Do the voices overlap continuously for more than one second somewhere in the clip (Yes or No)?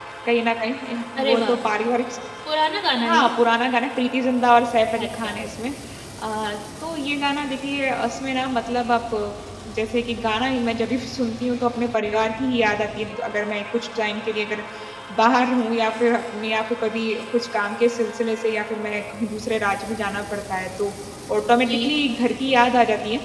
No